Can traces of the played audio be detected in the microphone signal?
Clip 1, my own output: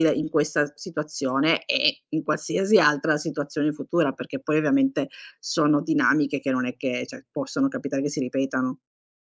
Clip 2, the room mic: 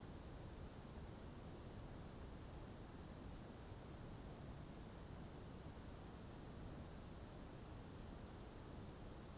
No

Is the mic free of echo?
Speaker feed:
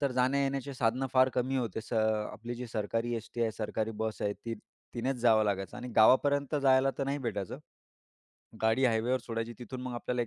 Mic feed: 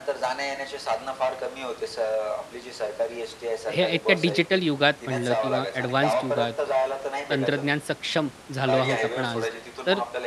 No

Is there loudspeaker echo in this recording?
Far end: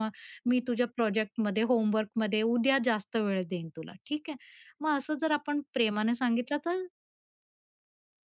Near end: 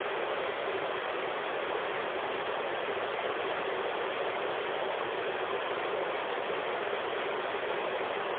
No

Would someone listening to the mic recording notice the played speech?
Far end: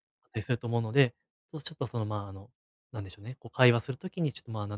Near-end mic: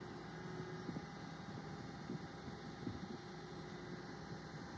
No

